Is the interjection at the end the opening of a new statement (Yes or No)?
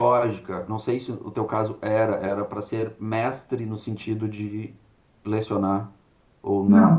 Yes